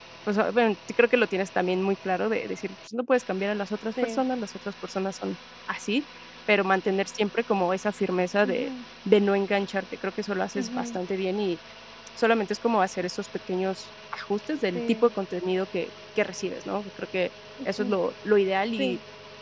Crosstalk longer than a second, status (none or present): none